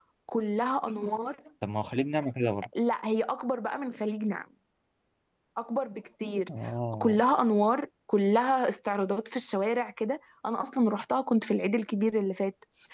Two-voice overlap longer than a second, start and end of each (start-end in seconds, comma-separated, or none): none